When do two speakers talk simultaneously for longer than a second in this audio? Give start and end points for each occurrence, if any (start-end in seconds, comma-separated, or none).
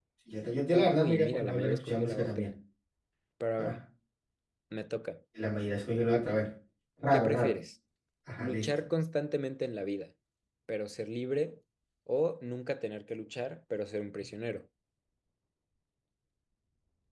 0.7-2.5